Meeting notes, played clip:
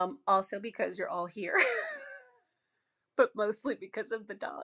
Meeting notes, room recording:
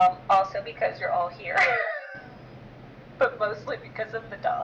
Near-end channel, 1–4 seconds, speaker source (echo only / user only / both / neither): echo only